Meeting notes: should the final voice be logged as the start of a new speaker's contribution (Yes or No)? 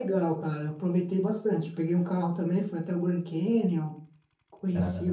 No